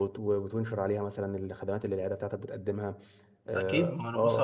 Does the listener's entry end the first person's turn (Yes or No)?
Yes